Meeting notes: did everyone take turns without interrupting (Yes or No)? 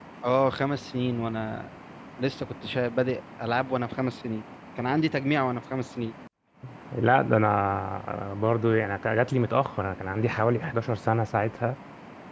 Yes